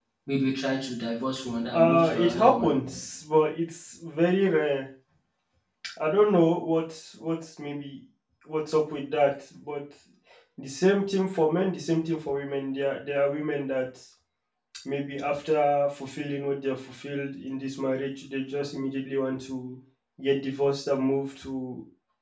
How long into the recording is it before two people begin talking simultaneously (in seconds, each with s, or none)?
1.5 s